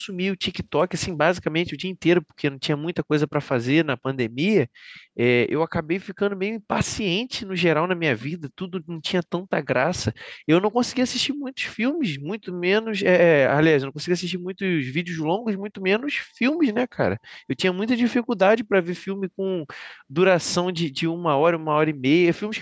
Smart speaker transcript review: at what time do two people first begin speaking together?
none

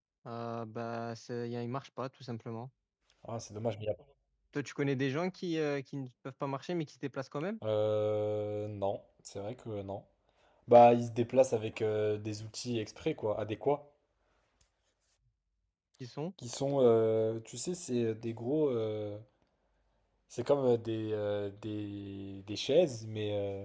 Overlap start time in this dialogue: none

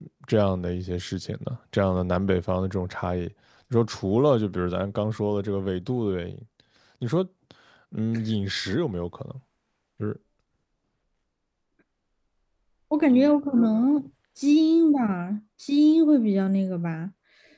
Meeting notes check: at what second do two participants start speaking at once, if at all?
none

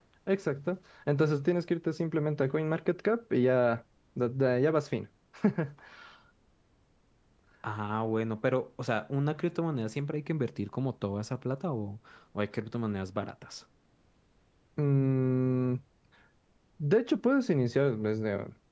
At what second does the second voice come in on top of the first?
none

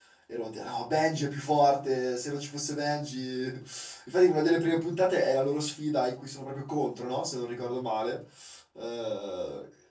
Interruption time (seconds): none

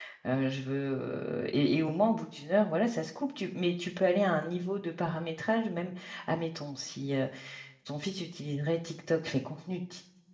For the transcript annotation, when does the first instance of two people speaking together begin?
none

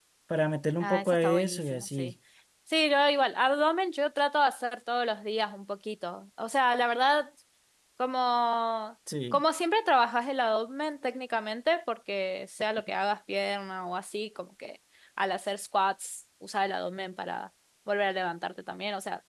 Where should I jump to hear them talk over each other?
0.8 s

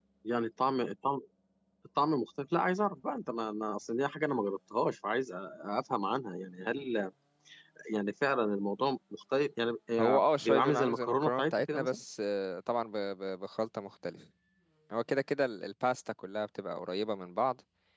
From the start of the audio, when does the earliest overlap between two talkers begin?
10.0 s

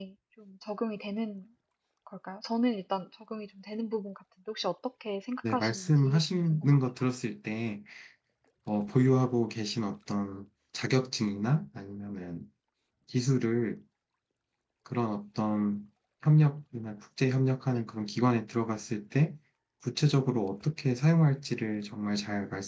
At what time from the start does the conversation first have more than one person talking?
5.4 s

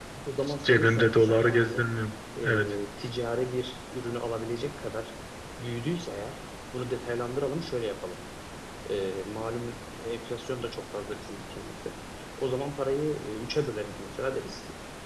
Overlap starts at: 0.6 s

